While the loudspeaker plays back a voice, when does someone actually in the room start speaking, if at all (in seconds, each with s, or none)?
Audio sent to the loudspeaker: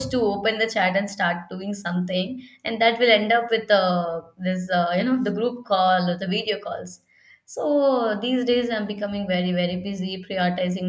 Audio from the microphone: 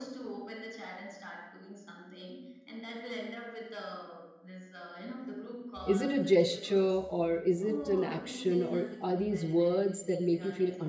5.8 s